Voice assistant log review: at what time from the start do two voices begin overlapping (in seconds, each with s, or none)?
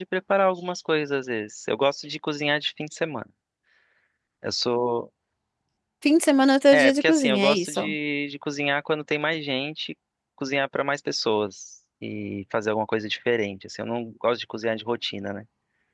6.7 s